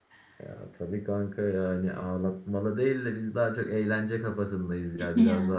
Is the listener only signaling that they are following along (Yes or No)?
Yes